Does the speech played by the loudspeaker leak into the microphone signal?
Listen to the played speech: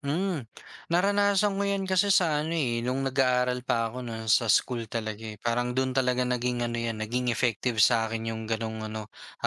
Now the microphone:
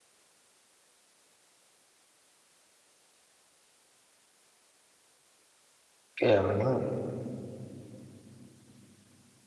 No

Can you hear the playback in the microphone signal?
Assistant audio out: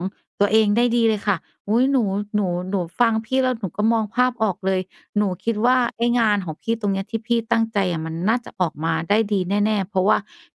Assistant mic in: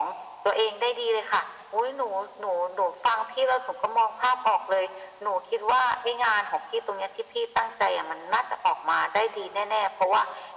Yes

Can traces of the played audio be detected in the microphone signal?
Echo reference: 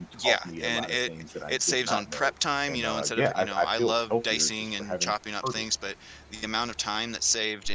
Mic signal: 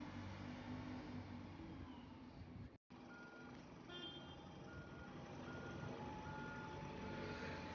No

